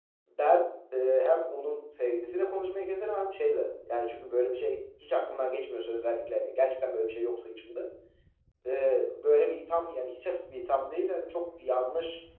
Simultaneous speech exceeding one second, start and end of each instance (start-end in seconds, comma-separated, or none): none